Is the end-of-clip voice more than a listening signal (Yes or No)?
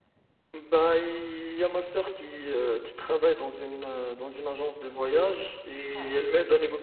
No